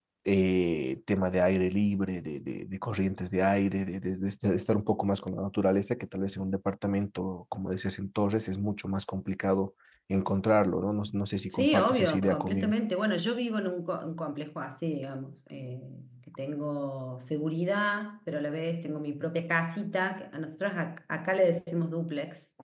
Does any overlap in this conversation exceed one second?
Yes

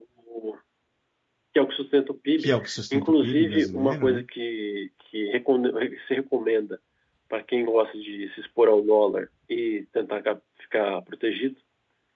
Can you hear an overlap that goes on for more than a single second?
Yes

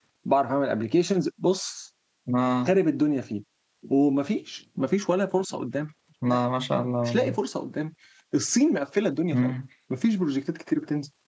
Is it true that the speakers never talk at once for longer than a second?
Yes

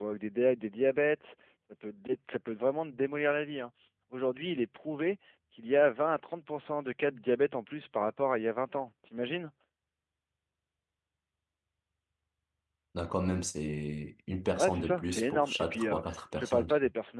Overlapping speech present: Yes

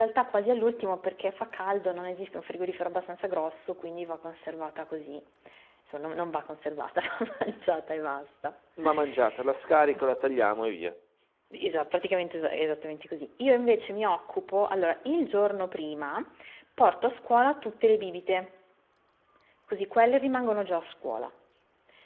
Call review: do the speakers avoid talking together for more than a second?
Yes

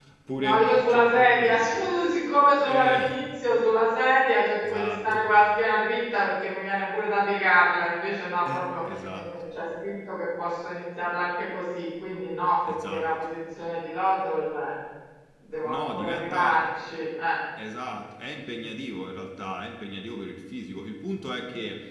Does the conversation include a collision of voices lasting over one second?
Yes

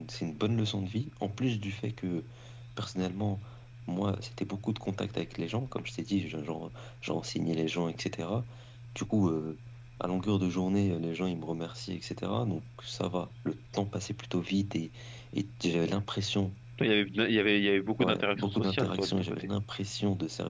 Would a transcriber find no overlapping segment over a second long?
No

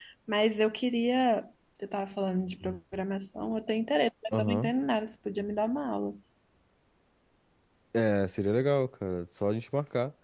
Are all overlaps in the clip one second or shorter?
Yes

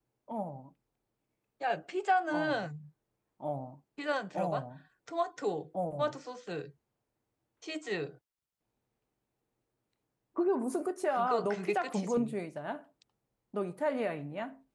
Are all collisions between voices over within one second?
No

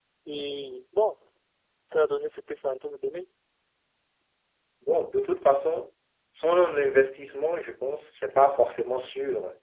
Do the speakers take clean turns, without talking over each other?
Yes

